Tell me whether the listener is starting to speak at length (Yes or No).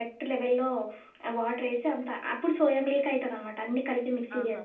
No